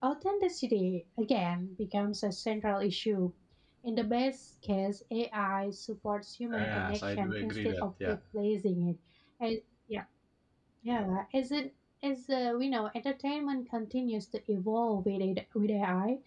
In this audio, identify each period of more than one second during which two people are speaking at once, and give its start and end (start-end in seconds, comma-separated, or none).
6.6-8.2